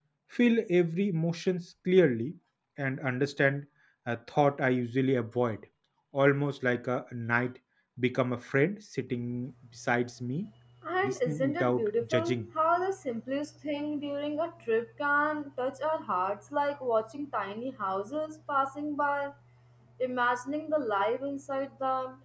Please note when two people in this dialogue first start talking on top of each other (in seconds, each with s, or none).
11.0 s